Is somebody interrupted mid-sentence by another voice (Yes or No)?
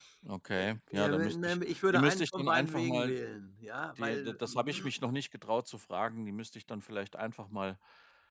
Yes